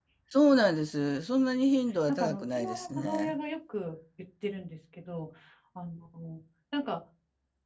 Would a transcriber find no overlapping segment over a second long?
No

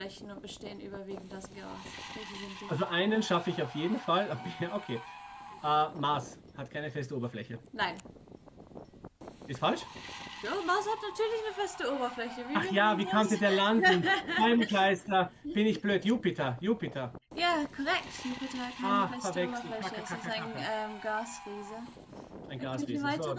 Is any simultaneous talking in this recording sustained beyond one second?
Yes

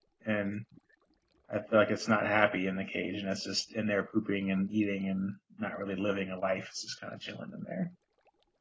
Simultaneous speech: No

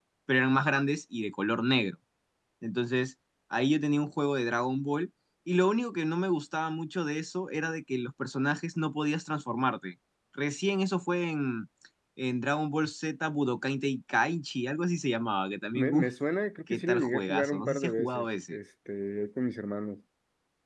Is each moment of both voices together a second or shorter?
No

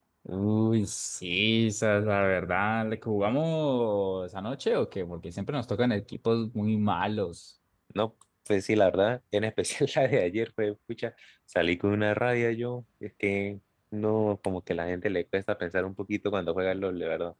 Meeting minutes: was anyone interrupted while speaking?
No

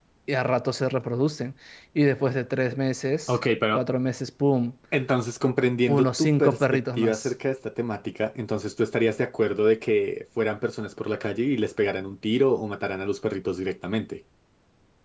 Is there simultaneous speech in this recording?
Yes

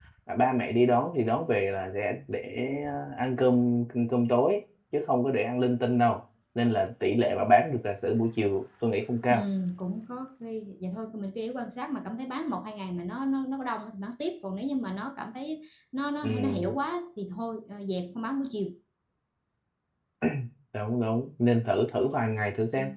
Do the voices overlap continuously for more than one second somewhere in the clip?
No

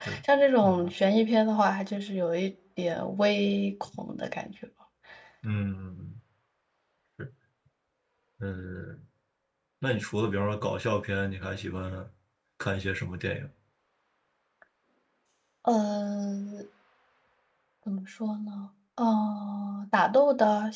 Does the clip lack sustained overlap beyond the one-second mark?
Yes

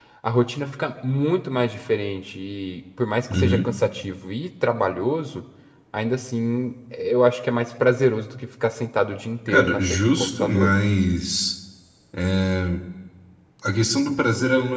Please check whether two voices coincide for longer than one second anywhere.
Yes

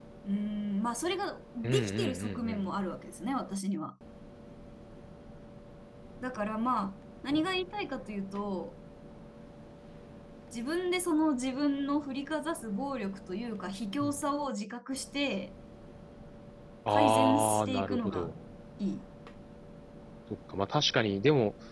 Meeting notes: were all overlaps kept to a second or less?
No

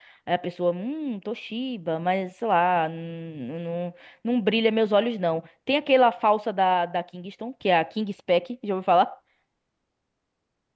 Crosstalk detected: No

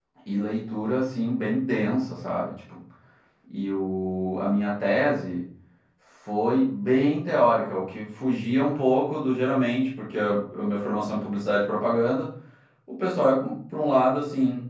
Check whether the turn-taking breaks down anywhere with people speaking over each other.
No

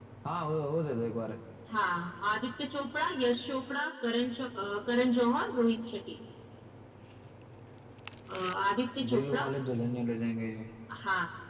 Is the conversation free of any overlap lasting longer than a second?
Yes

